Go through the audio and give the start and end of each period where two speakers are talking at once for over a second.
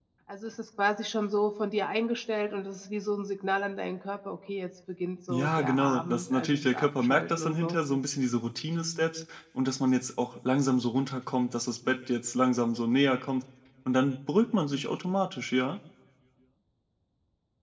5.3-7.8

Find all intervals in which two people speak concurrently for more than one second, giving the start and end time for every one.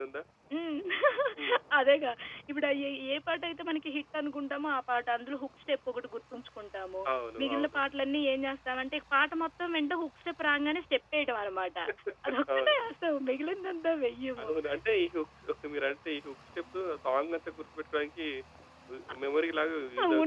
none

